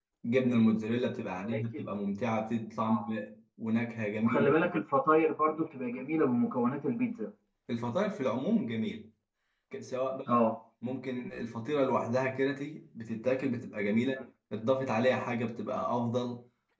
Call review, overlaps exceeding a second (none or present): none